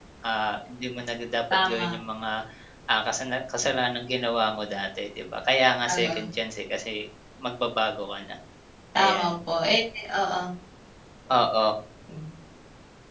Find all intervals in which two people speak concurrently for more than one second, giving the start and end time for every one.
none

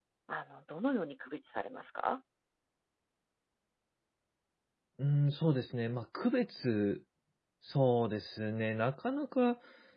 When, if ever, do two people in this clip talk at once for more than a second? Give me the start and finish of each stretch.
none

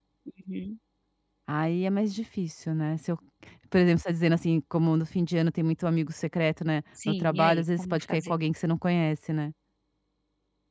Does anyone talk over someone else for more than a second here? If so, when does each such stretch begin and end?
7.1-8.4

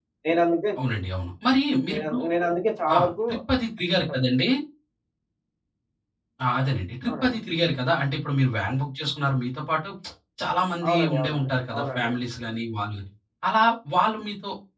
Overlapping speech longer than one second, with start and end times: 10.9-12.1

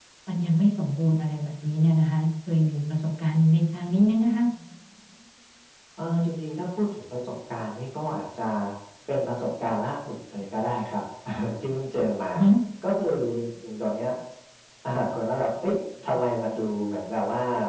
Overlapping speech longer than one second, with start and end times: none

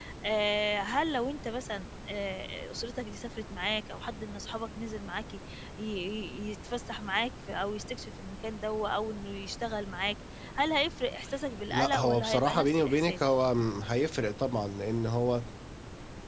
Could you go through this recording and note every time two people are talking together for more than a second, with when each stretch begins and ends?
11.7-13.3

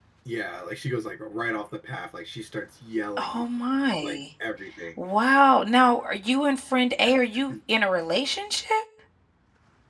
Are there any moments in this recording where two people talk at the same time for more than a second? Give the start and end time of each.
none

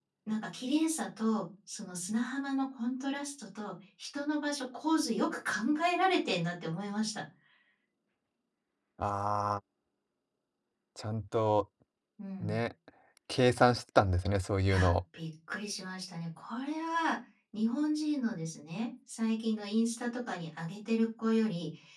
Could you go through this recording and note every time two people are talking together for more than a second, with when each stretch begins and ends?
none

